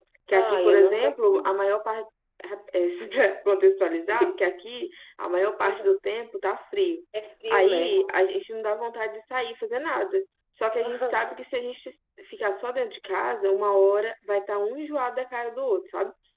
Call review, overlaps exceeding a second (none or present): present